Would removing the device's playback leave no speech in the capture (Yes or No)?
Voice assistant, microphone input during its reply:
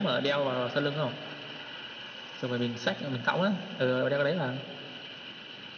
Yes